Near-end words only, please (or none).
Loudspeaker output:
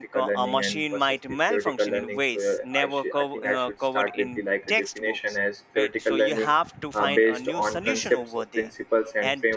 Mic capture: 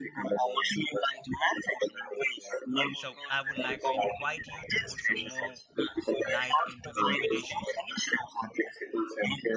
so i would like to invite you to put some more light into the limitations